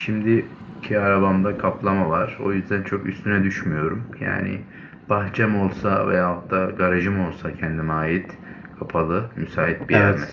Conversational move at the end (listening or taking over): listening